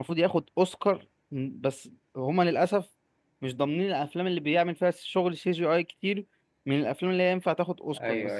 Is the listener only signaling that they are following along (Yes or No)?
No